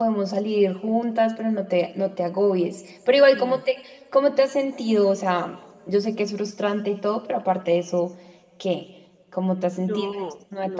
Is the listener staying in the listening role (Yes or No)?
No